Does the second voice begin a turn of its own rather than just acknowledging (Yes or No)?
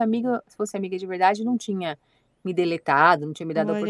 Yes